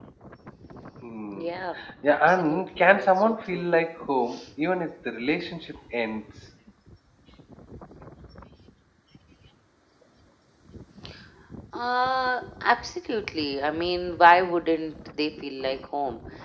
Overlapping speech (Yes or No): Yes